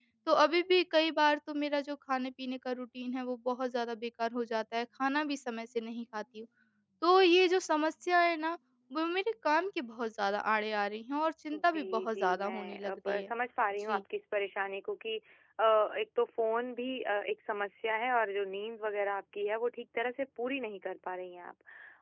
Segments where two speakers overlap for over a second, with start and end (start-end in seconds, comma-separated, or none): 11.5-13.3